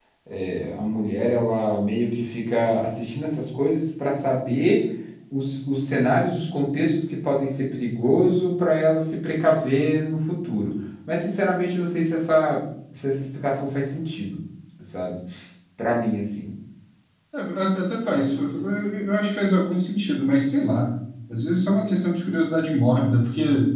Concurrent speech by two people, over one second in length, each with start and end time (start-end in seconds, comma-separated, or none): none